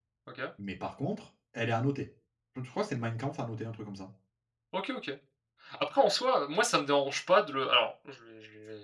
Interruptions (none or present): none